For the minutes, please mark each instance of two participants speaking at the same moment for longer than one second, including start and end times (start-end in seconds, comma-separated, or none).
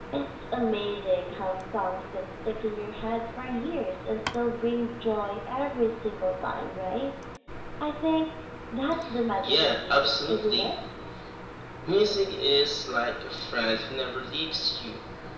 9.4-10.7